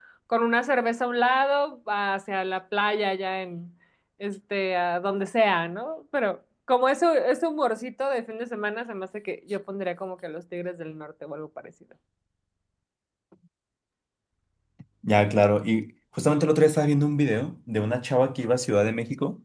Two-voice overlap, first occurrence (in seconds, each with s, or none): none